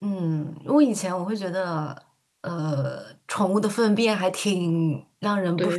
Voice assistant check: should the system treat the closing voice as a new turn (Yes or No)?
No